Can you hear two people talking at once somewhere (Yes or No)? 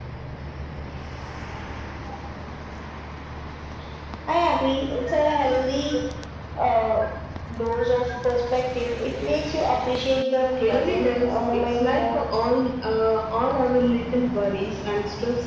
Yes